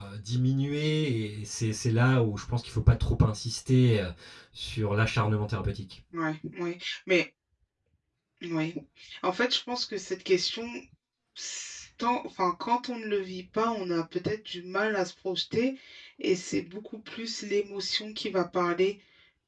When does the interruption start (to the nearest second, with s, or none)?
none